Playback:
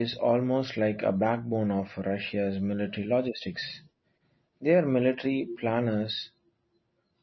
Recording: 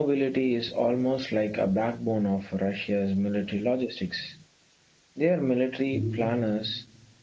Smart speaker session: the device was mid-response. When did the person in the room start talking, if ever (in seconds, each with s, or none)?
5.9 s